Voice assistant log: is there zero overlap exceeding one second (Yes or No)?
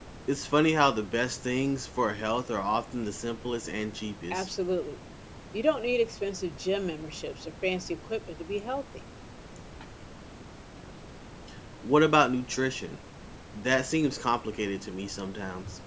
Yes